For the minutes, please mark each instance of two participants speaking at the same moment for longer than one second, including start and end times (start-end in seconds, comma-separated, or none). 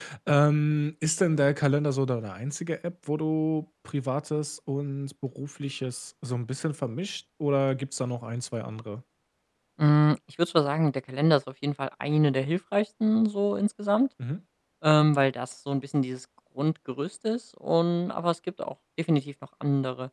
none